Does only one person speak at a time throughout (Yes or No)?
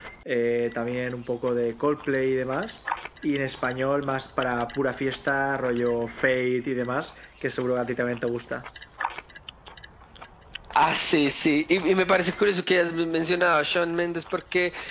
Yes